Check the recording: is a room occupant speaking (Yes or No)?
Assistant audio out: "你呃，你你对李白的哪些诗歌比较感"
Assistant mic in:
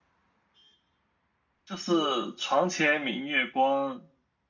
Yes